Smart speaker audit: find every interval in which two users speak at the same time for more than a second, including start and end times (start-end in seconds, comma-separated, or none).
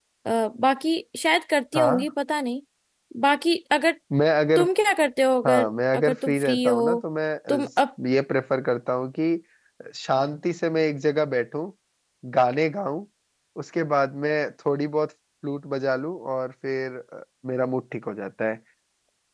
5.5-7.0